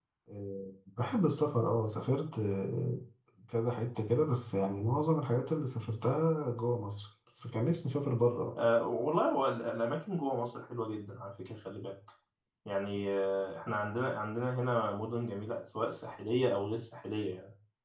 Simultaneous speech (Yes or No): No